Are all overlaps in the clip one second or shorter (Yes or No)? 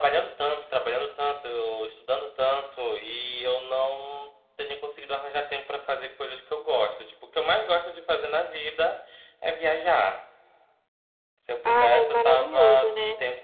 No